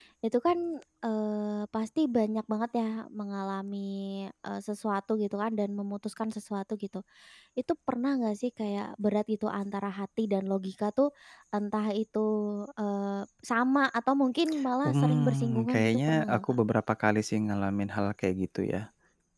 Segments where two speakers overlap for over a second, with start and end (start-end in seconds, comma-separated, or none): 14.8-16.6